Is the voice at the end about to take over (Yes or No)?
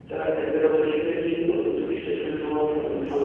Yes